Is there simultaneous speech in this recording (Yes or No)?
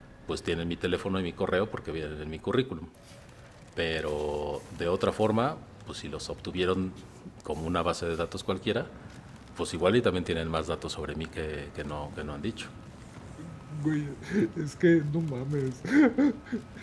No